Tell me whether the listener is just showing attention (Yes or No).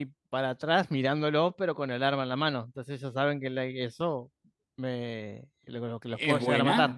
No